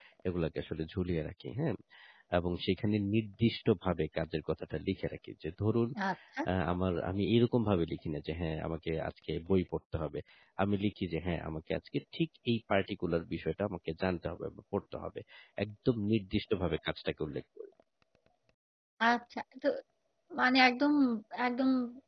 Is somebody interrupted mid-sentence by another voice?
No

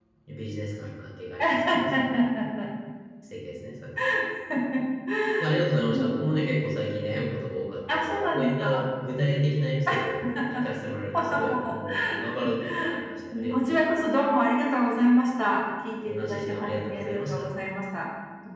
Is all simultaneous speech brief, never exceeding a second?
No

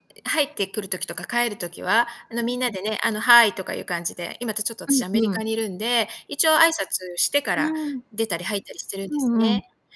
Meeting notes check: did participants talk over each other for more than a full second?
No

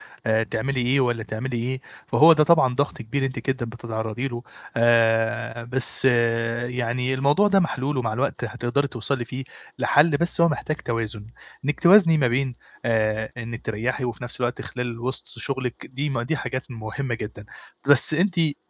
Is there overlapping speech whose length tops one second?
No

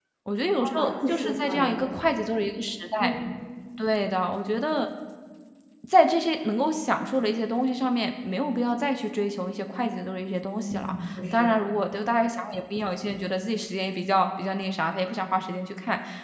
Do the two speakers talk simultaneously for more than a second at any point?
Yes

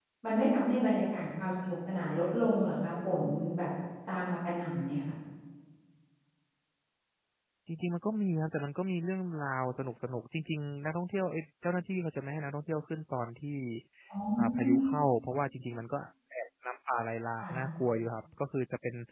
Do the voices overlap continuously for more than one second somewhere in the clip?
No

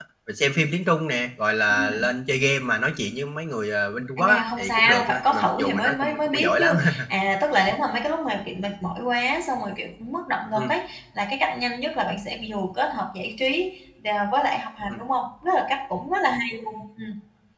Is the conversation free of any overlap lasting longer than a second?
No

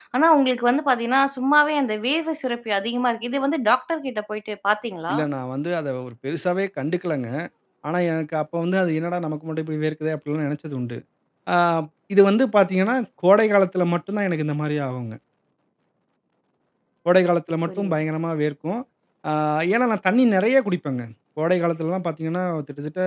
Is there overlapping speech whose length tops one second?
No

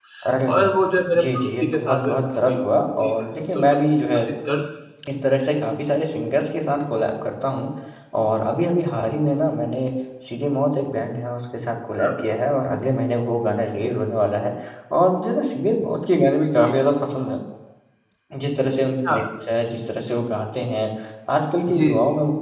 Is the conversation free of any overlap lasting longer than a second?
No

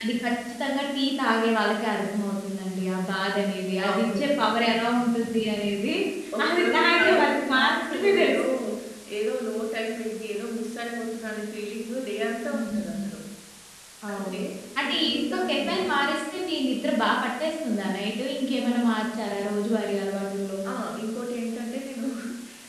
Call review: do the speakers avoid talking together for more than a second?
No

